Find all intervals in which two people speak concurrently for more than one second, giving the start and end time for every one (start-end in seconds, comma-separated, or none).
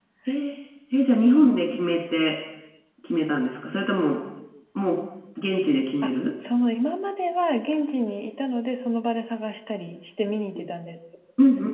none